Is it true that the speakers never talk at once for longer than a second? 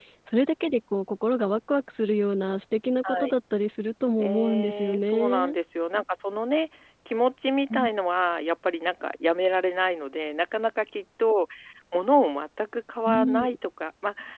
No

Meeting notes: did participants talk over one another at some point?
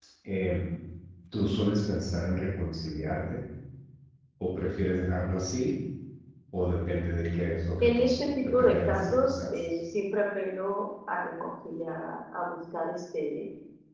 Yes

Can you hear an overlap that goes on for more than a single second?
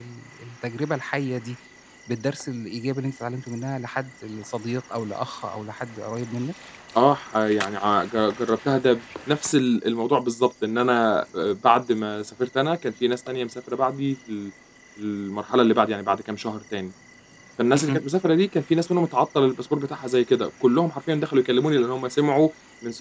No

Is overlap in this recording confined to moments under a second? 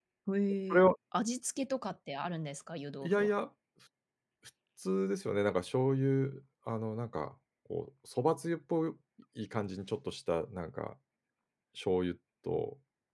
Yes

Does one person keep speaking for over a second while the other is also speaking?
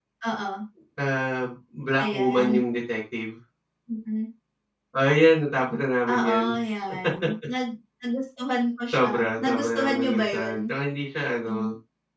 Yes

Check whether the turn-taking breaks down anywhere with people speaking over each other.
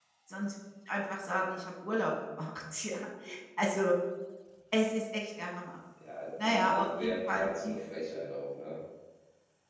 Yes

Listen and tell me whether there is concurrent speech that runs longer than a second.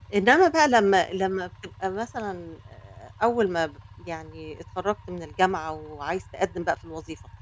No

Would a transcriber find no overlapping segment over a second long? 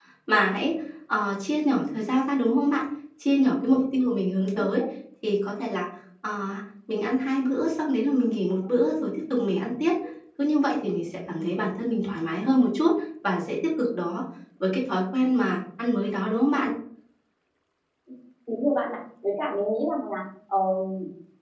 Yes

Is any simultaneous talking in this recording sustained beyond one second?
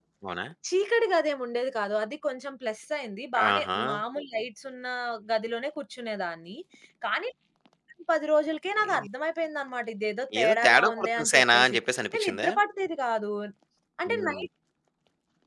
Yes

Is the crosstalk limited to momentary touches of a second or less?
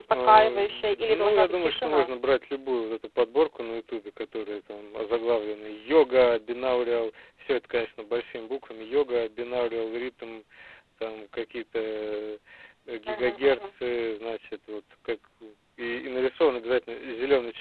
No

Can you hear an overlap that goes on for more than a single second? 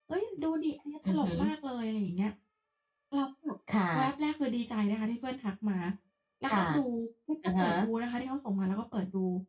No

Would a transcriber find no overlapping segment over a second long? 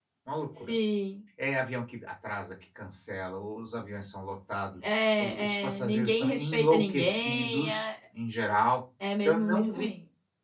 No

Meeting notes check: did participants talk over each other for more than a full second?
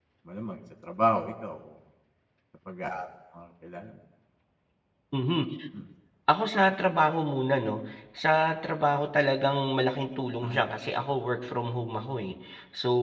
No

